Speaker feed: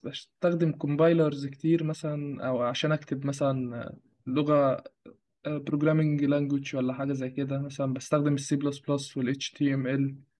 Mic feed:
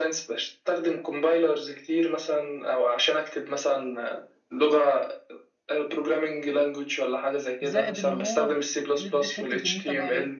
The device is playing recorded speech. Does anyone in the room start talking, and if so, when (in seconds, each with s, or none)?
7.6 s